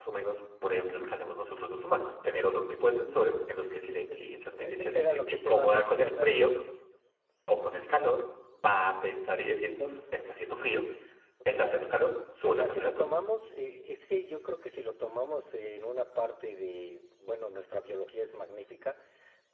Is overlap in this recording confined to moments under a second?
No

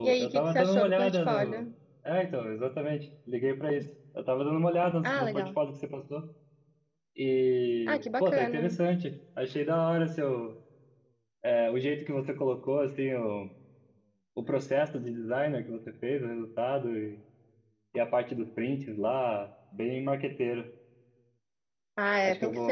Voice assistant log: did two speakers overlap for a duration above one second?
Yes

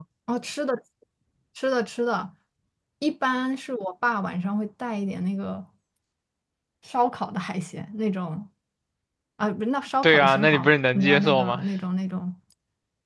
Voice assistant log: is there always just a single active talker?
No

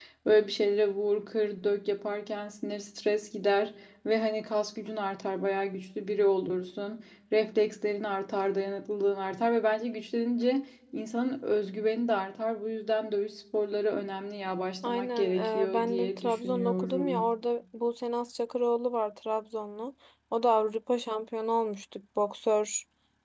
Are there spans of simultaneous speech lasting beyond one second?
Yes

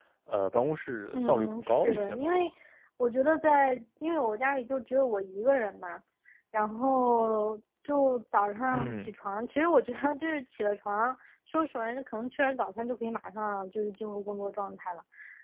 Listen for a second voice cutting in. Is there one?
Yes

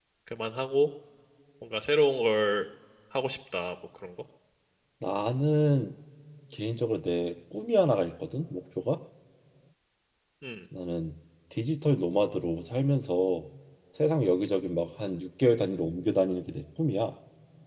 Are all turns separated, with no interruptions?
Yes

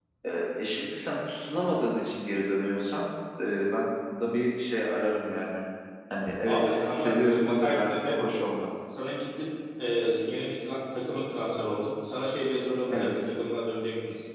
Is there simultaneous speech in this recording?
Yes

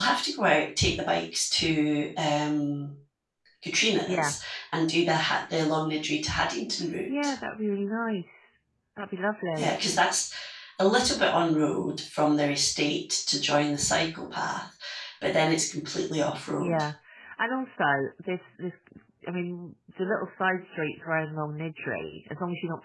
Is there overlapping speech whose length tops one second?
No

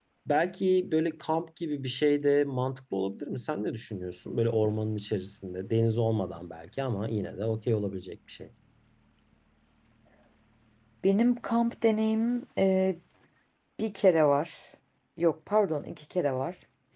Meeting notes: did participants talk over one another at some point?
No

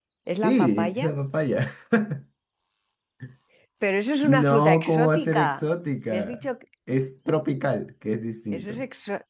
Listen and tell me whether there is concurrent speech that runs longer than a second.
Yes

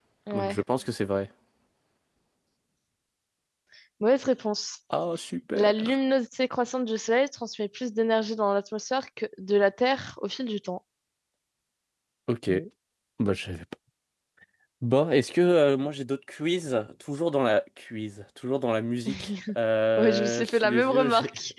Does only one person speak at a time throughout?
No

